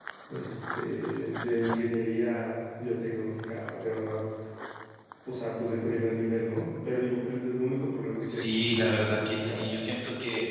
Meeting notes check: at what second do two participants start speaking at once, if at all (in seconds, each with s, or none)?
8.2 s